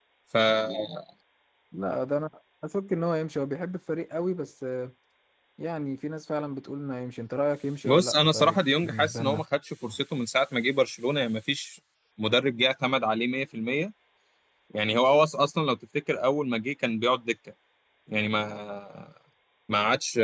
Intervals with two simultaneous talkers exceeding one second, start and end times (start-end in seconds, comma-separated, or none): 7.8-9.4